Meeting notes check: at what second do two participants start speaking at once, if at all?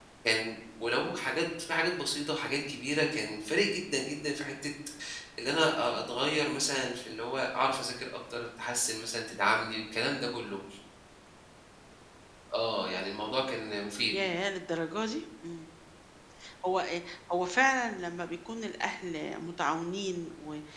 none

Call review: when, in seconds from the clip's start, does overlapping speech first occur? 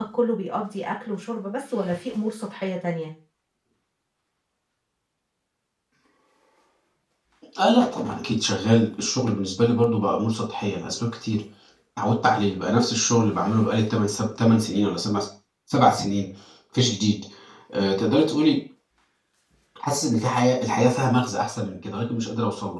none

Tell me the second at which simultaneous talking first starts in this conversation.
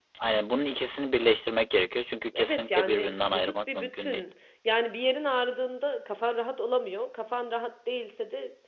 2.3 s

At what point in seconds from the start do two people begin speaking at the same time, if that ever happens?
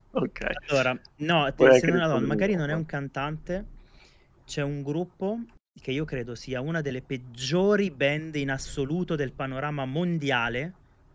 1.6 s

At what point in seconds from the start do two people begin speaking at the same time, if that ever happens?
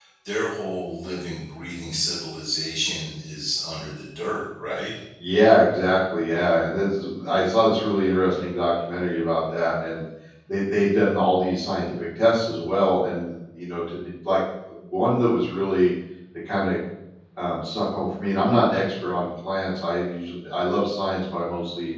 none

